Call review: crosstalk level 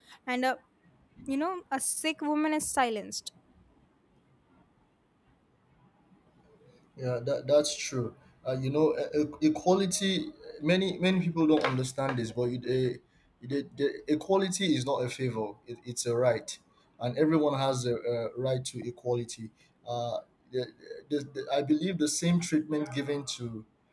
none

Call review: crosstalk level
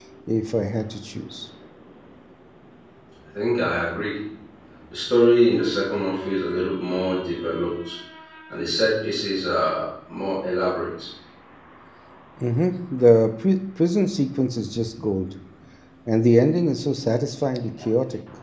none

